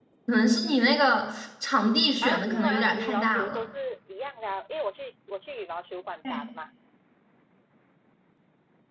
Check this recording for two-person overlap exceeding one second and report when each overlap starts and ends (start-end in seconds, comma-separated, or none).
2.2-3.6